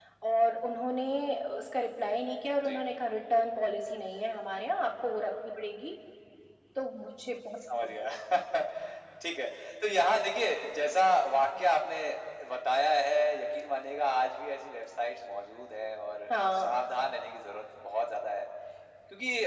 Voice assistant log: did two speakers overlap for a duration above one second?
No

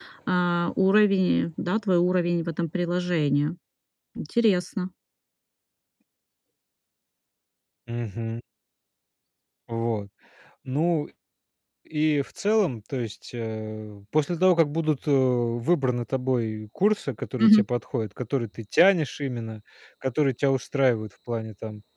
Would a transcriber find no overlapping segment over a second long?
Yes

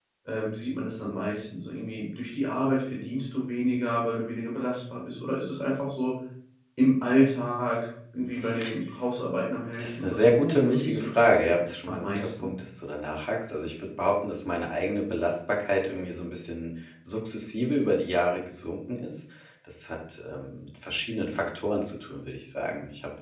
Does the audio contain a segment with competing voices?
Yes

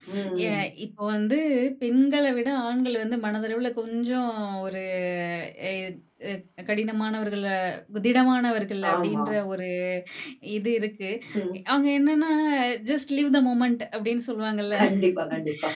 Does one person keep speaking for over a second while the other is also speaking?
No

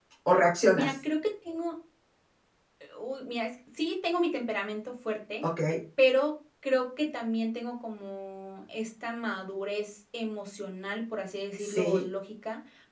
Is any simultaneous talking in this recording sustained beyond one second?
No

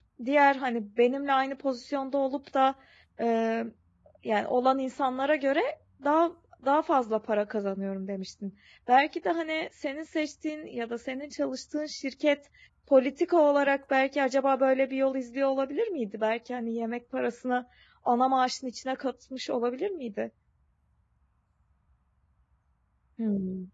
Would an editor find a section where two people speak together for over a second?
No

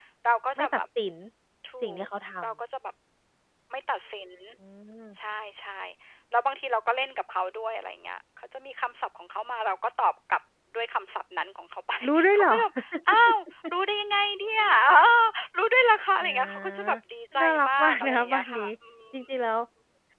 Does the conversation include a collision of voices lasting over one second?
Yes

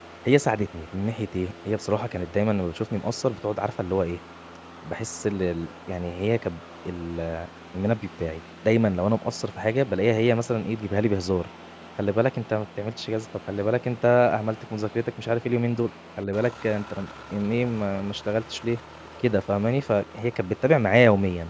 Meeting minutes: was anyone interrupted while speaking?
No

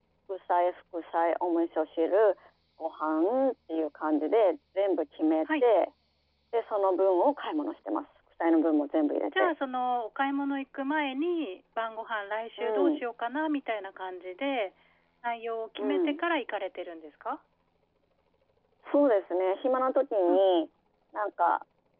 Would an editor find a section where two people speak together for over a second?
No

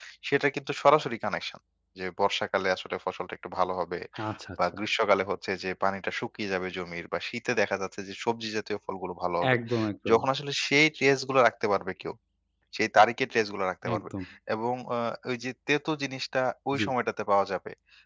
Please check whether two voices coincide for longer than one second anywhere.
No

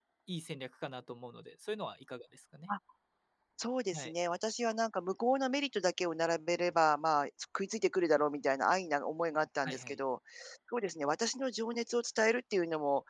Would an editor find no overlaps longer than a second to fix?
Yes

